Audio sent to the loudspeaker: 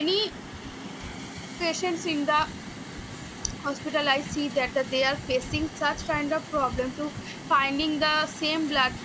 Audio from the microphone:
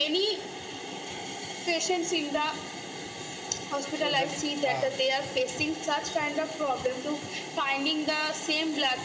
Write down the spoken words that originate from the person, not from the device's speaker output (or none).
so that's uh,